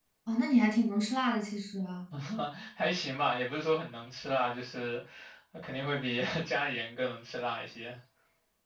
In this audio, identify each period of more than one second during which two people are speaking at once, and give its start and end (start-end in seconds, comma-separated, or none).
none